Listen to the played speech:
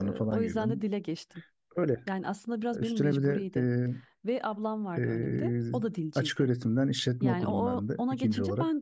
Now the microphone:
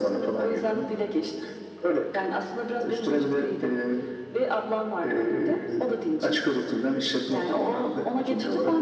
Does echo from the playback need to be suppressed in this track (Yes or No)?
Yes